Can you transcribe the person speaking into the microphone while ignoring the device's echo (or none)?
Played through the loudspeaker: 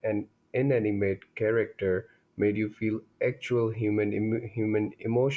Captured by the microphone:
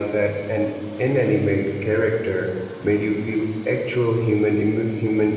none